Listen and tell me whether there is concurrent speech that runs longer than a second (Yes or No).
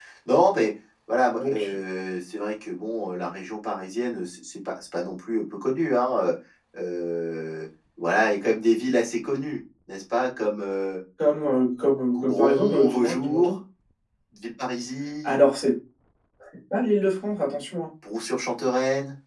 Yes